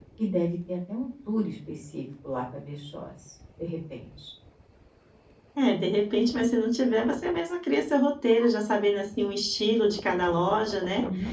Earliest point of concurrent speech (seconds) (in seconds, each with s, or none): none